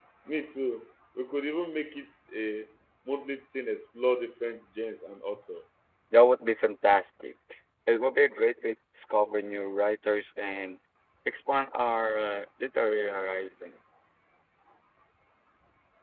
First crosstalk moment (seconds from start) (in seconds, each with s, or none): none